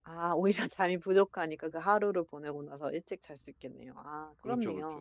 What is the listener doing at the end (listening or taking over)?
taking over